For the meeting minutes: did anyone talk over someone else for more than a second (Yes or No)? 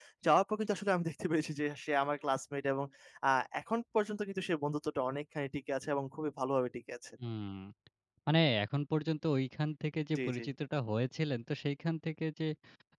No